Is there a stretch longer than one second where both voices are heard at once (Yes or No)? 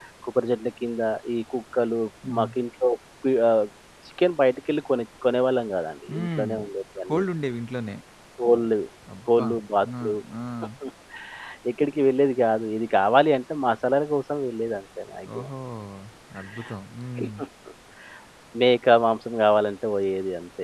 No